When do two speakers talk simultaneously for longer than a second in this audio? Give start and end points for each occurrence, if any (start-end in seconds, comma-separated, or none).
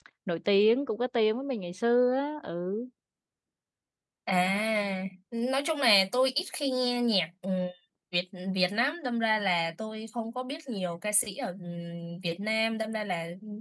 none